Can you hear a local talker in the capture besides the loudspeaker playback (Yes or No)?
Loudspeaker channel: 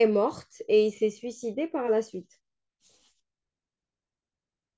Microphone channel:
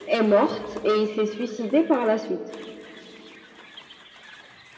No